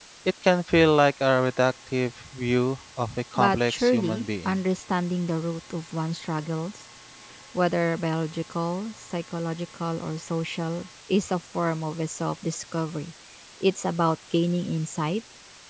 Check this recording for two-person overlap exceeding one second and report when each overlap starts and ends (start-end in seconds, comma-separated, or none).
3.4-4.6